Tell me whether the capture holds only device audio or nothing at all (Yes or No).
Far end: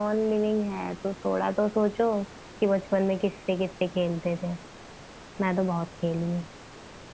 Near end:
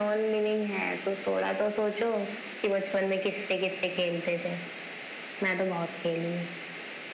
Yes